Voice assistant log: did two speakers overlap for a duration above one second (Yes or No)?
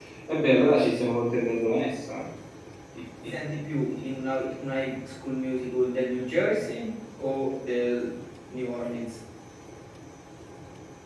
No